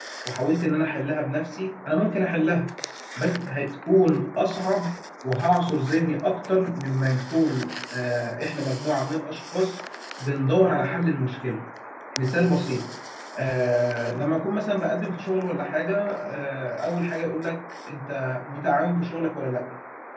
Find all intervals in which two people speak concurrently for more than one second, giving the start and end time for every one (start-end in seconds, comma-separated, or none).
none